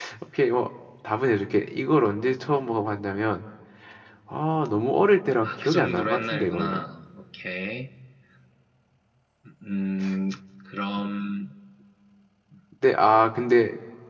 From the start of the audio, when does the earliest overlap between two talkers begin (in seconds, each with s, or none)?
5.4 s